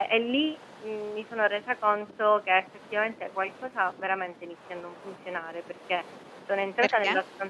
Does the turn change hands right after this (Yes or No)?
No